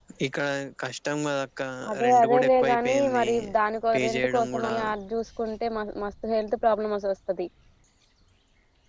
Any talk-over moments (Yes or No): Yes